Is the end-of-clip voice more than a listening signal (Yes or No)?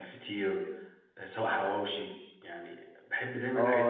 Yes